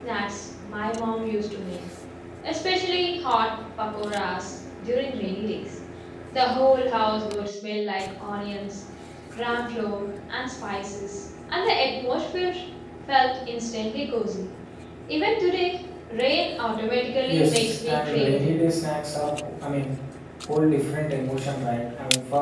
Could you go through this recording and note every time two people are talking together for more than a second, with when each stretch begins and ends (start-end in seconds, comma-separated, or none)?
17.3-18.6